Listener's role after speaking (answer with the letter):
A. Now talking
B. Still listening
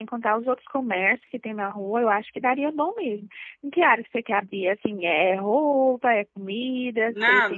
A